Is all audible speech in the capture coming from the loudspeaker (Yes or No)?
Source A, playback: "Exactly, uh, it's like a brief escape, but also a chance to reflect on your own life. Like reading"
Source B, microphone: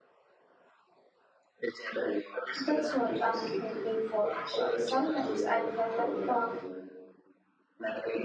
No